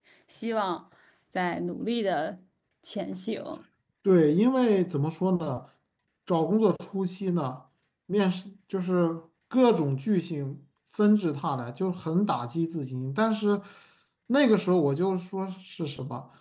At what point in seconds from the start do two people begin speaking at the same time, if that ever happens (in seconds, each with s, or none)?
none